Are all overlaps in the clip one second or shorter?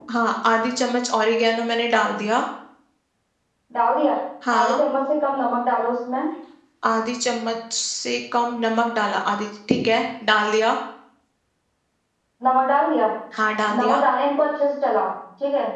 Yes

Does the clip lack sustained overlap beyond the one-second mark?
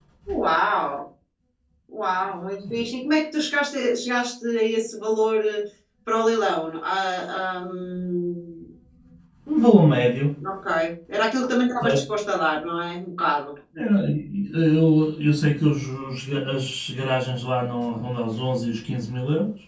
Yes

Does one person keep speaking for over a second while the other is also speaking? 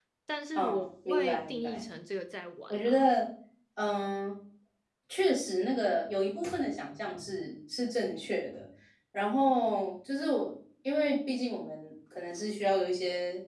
Yes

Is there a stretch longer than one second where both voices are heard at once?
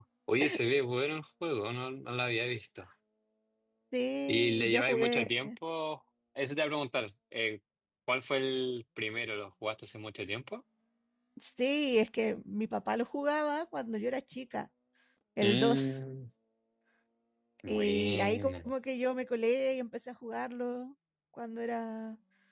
Yes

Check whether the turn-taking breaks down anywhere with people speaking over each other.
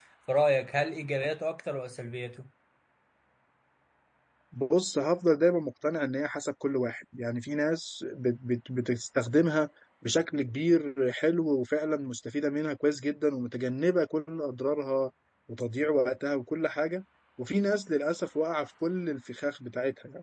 No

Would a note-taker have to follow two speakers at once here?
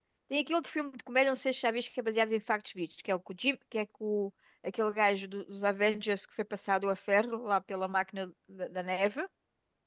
No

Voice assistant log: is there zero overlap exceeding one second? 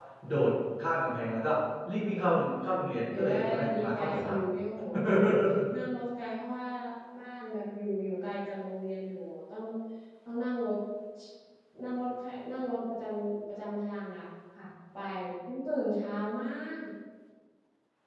No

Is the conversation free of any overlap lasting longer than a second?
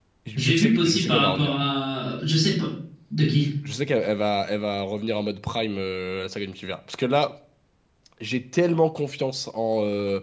No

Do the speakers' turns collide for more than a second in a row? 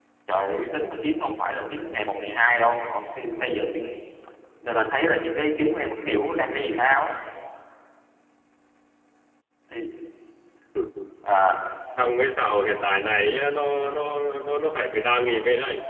No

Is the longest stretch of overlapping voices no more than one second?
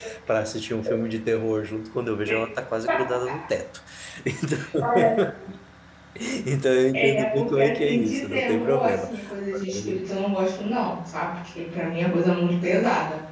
No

